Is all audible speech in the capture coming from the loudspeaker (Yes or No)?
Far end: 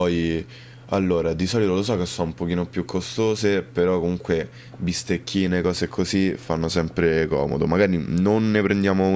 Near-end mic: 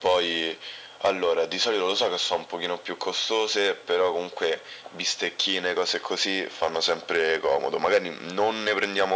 Yes